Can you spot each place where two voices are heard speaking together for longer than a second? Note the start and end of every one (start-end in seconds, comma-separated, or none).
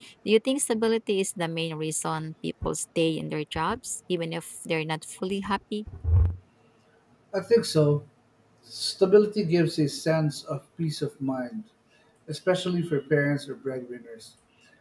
none